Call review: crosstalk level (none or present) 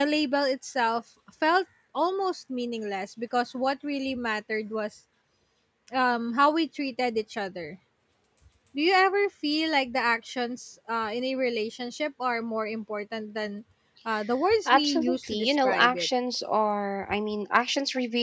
present